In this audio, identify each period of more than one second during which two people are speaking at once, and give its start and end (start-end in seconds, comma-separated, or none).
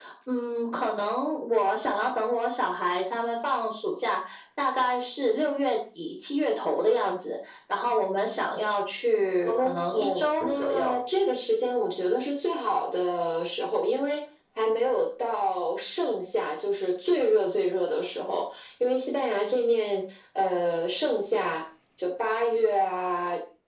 9.4-11.0